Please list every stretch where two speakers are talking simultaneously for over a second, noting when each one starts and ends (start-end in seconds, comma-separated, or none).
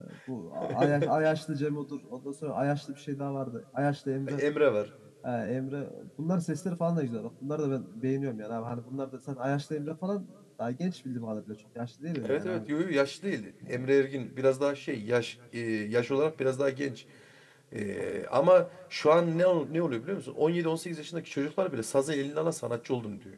none